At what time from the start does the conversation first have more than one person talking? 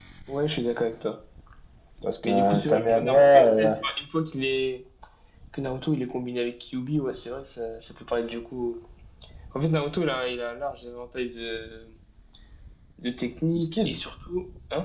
2.2 s

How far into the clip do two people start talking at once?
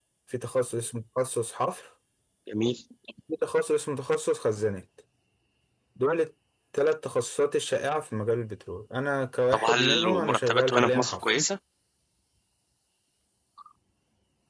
9.5 s

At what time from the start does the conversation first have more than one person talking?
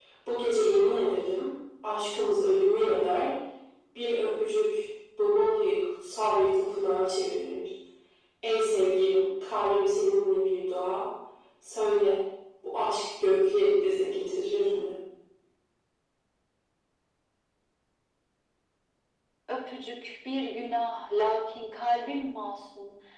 none

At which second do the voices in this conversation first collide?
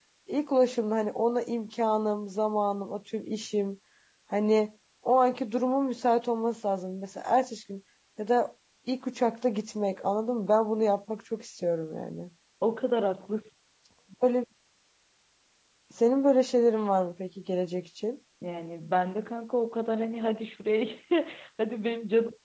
none

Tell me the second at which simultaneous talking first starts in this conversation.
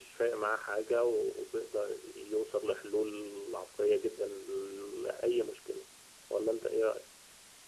none

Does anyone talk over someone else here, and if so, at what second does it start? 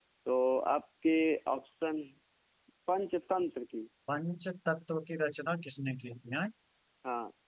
none

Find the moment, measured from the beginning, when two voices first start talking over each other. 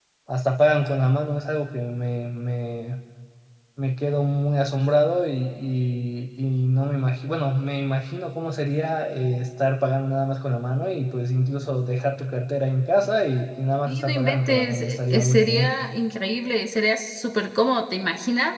13.9 s

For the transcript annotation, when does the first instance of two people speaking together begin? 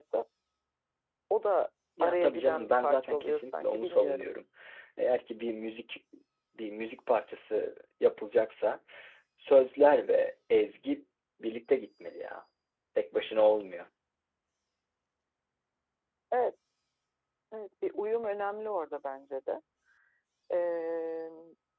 2.0 s

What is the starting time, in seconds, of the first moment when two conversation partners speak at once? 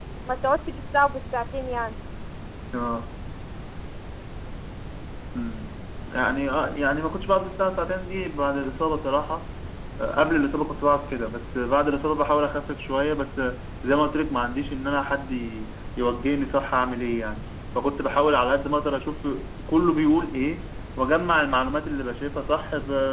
none

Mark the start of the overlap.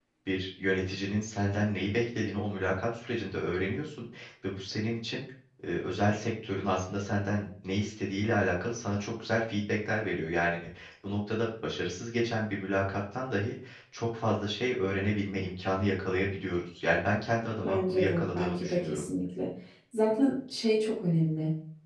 17.6 s

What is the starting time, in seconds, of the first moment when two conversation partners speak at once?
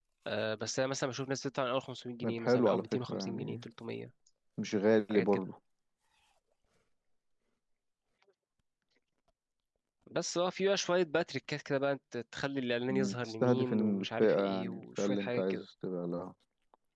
2.2 s

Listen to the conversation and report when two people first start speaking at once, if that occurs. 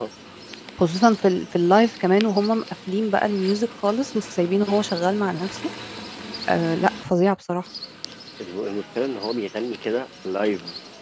none

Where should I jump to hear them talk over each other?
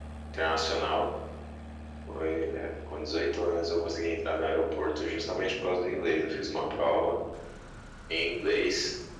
none

